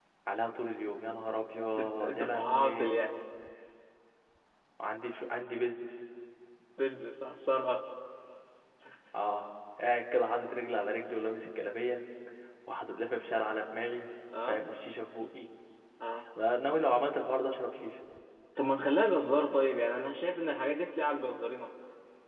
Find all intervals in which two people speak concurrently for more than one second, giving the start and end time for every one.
1.8-3.0

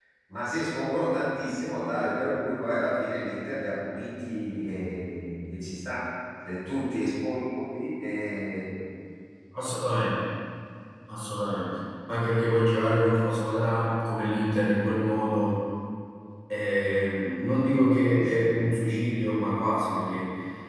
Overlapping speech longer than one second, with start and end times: none

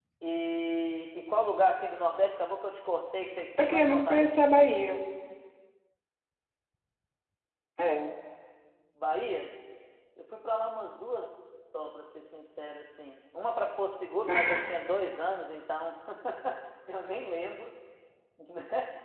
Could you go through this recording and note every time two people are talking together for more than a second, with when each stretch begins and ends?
3.6-5.0

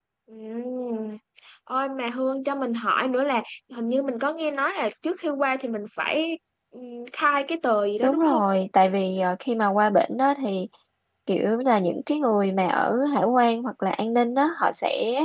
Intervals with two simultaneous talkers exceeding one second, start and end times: none

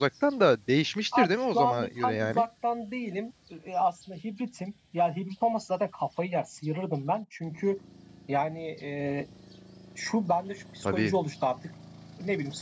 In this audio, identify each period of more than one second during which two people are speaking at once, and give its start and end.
1.2-2.4

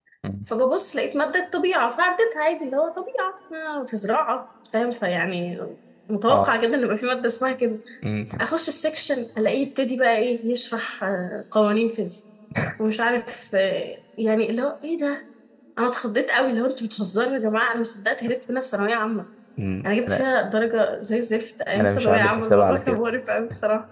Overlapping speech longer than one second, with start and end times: 21.8-23.0

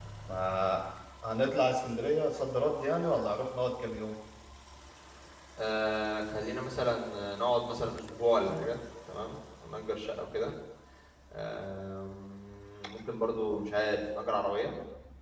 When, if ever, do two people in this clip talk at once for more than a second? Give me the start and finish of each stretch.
none

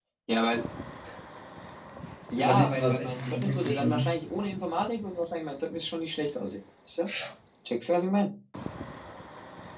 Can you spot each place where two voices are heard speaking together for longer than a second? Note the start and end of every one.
2.4-4.1

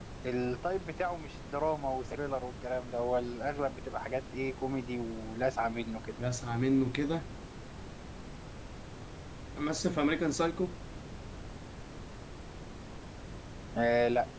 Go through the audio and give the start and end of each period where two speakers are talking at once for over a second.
none

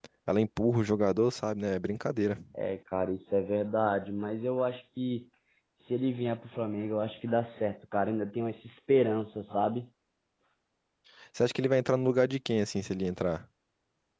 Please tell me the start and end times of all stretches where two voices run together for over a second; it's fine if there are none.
none

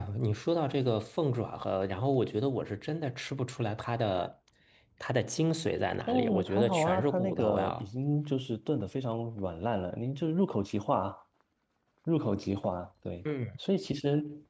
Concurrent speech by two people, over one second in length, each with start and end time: 6.1-7.8

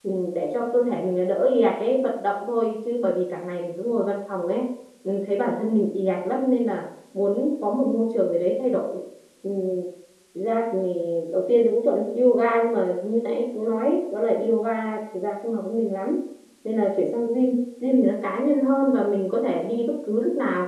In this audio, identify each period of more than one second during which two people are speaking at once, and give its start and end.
none

